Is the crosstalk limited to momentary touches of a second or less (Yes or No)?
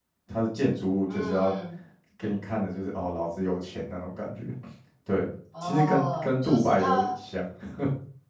No